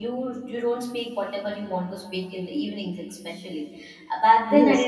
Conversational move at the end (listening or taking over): listening